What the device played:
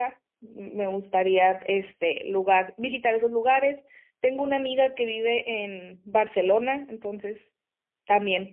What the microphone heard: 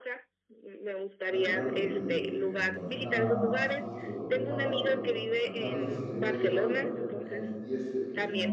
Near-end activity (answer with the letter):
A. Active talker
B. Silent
A